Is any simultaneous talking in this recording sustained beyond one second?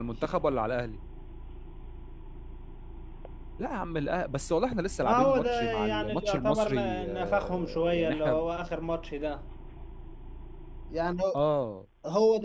Yes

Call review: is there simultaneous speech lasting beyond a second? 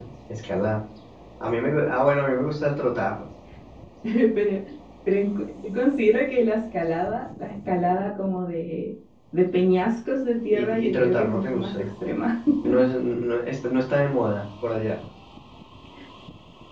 Yes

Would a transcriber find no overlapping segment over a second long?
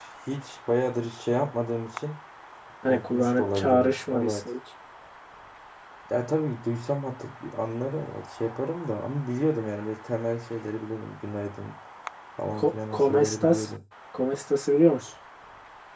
No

